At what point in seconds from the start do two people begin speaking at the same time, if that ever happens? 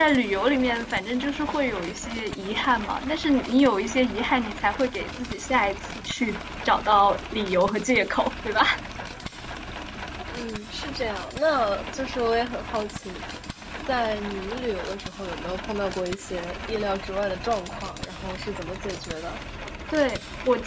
none

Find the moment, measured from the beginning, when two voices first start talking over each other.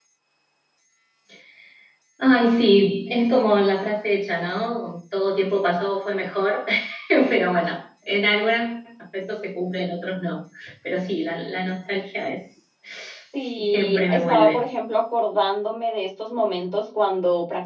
13.3 s

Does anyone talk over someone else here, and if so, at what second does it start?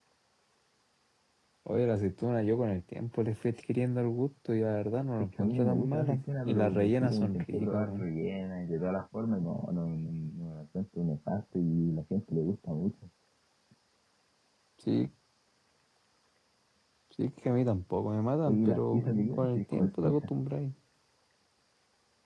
5.4 s

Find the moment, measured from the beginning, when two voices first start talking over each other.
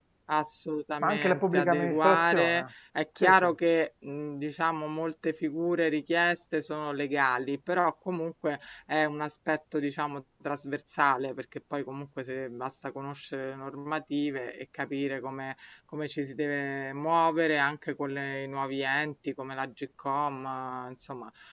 1.0 s

